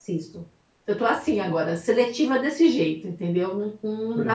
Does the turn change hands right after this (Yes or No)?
Yes